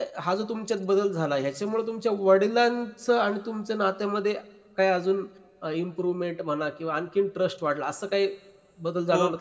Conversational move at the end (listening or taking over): taking over